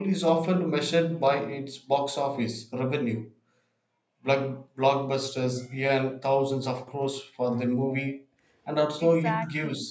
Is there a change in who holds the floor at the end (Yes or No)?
No